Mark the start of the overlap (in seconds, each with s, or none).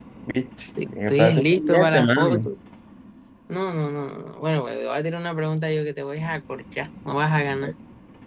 0.8 s